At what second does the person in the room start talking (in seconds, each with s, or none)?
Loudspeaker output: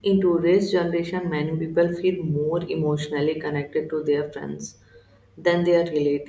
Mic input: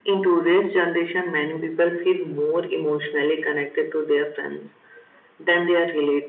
none